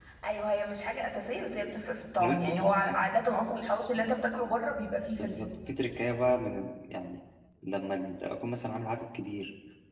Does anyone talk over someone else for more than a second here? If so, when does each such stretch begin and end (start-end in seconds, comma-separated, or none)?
none